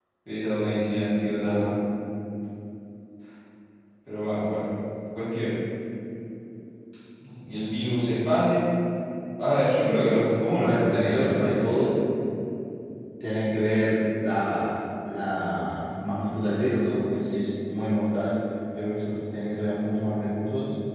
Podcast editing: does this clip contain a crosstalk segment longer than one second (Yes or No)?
Yes